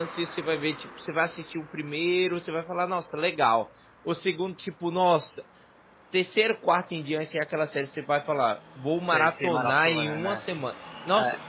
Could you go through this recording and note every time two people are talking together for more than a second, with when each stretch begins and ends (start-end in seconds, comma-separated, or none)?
9.0-10.4